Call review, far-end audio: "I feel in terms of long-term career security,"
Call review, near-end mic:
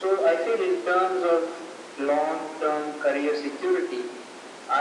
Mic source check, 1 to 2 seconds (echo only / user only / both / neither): echo only